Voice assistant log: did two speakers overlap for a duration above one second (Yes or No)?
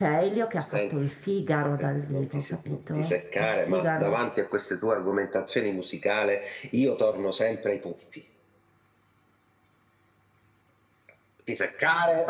Yes